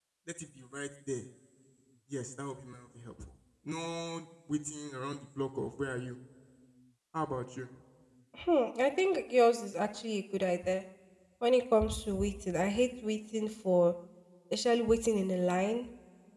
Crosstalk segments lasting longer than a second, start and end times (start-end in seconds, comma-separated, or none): none